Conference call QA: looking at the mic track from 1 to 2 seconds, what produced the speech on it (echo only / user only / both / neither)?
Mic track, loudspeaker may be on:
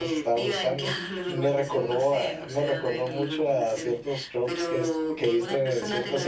both